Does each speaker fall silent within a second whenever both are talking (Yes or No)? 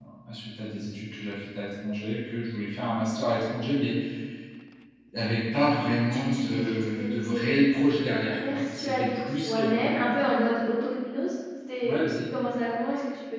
No